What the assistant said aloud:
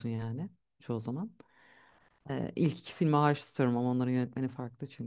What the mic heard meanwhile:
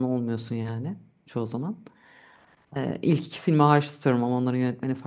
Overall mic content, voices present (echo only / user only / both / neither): echo only